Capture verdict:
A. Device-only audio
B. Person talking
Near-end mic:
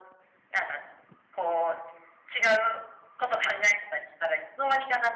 A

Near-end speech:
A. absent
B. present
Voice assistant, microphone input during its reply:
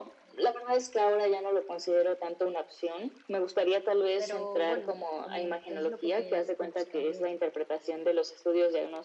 B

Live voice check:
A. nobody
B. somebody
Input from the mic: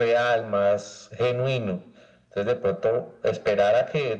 A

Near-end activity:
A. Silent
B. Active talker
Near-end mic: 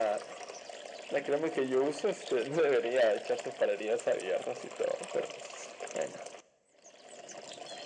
A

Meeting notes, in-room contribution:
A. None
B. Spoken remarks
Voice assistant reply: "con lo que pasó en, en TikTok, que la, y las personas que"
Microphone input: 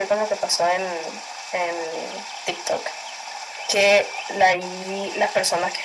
A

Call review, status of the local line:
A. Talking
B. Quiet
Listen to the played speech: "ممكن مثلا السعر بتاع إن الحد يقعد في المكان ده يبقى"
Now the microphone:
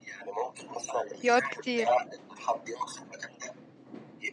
A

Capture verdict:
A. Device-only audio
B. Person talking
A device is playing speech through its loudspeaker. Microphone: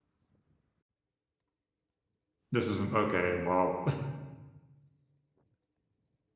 B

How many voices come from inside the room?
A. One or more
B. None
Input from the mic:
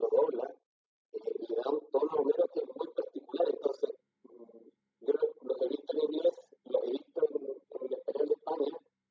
B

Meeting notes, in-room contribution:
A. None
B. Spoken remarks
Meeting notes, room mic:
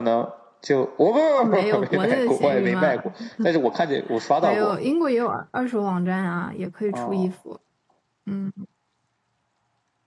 B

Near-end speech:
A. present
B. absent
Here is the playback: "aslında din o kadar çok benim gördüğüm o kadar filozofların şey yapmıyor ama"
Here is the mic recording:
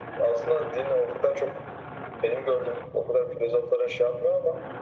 B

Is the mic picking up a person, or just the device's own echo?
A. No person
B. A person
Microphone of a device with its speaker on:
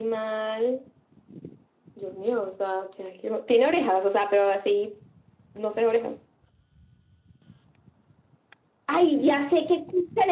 A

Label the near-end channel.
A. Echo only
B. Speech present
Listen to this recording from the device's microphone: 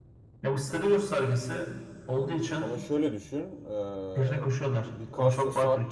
B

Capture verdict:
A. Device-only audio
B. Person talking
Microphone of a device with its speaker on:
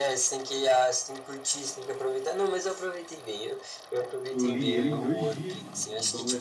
B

